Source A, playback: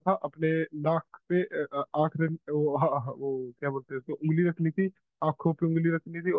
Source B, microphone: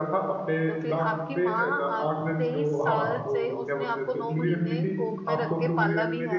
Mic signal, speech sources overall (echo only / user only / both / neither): both